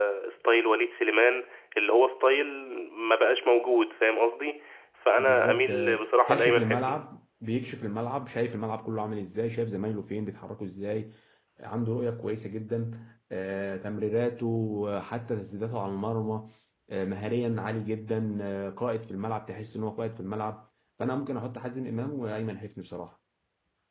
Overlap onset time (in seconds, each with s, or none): 5.2 s